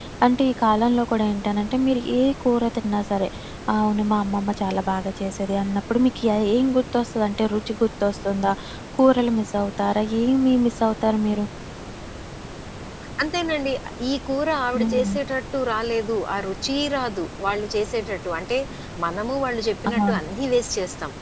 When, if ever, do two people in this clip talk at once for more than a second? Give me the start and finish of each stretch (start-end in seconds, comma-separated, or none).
none